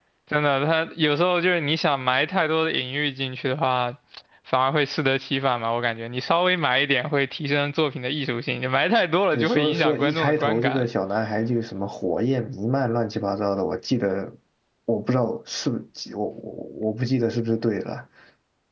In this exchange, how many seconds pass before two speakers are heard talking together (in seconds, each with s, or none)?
9.3 s